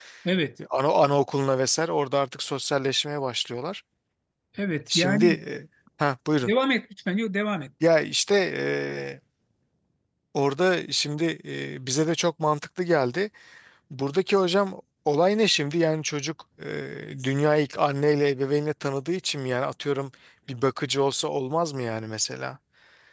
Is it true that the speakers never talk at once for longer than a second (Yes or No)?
Yes